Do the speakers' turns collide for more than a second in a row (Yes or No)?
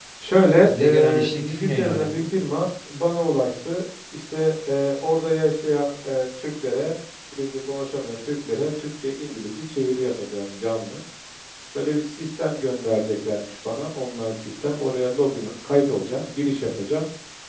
Yes